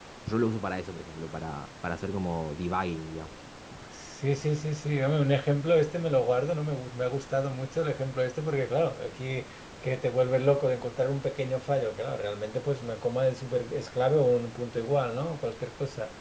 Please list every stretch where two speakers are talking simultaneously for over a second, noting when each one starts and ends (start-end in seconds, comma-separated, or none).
none